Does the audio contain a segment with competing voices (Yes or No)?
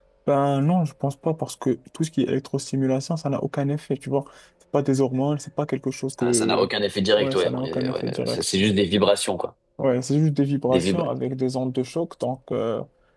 Yes